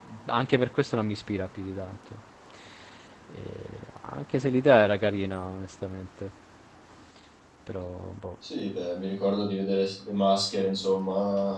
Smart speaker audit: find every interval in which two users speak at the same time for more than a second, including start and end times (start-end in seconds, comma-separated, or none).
none